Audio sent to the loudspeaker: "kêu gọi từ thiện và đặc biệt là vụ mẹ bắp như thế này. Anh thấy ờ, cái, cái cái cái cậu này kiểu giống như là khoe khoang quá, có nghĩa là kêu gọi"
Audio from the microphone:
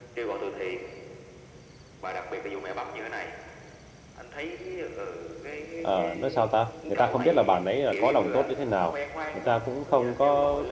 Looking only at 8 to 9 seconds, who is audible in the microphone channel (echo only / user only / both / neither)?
both